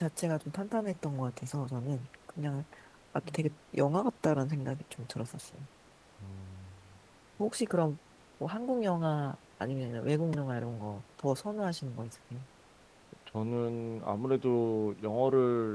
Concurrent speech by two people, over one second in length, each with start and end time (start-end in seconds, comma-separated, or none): none